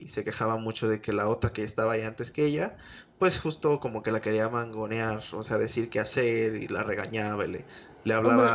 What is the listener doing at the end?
taking over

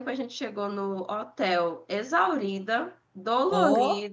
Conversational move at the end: listening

